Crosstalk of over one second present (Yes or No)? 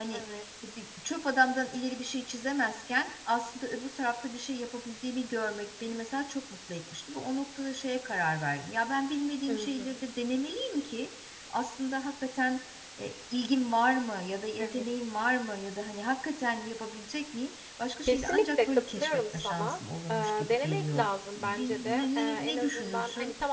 Yes